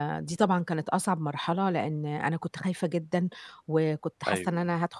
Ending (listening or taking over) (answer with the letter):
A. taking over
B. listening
B